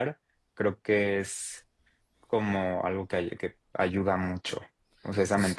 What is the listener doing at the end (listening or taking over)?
taking over